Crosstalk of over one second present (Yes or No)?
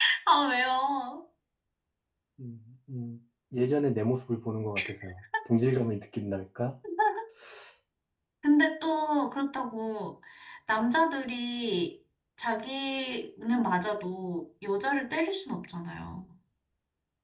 No